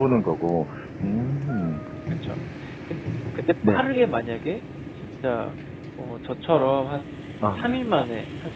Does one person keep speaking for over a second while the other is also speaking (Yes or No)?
No